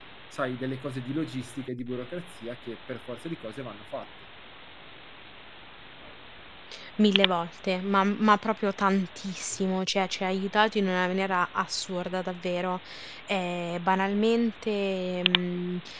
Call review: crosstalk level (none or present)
none